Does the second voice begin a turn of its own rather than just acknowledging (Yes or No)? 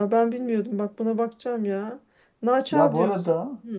Yes